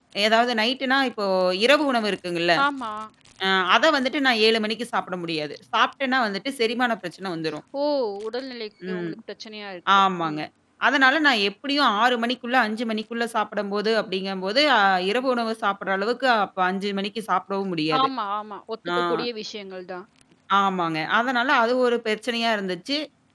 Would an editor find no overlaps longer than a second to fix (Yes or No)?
Yes